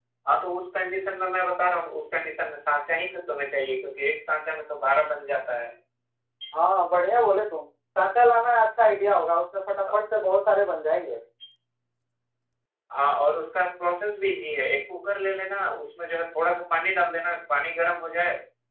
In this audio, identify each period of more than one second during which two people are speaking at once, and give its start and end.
none

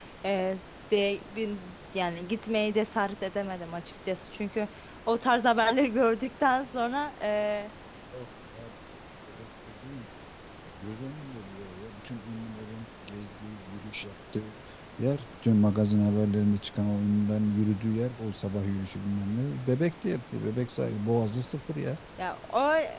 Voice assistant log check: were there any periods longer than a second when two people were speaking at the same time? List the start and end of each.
none

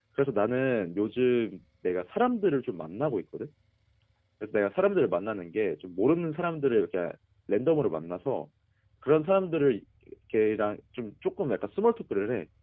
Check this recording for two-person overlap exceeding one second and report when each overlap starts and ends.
none

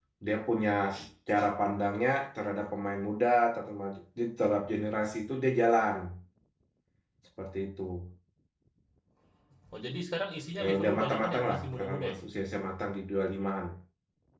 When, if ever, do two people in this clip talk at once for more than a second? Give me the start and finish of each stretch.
10.6-12.2

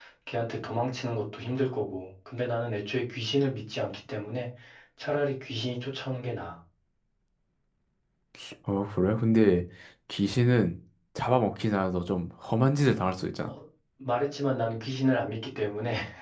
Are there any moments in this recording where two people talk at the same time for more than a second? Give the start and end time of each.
none

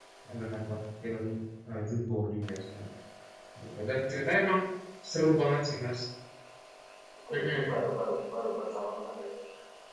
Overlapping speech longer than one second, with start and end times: none

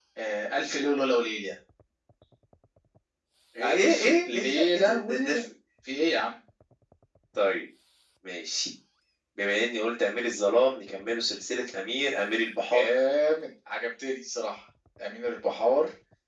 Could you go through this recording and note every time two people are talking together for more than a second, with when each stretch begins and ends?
3.6-5.4

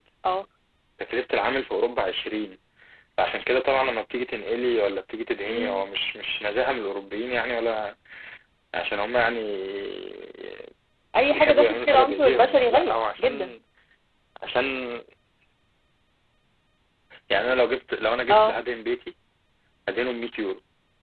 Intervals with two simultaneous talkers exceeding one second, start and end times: 11.3-13.5

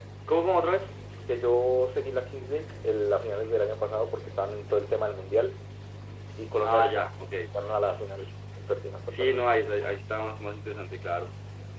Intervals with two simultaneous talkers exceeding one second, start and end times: none

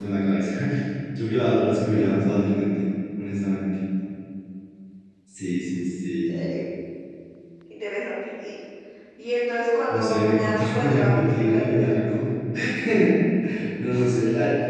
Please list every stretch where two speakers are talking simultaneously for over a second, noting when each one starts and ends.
9.9-11.9

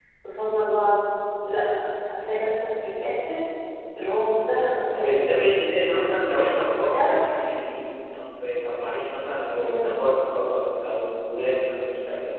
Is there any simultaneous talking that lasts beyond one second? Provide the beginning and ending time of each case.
none

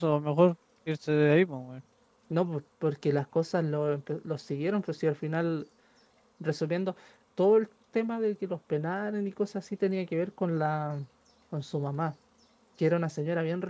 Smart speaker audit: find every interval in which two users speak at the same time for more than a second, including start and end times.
none

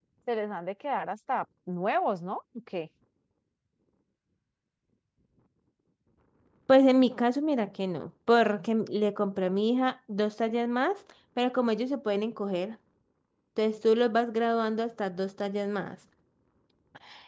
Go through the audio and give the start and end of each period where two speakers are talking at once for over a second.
none

